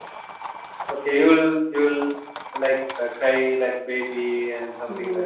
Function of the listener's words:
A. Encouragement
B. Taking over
B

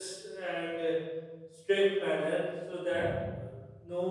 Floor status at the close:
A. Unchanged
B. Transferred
A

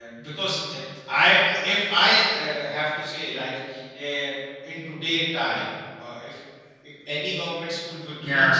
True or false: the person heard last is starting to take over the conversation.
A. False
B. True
A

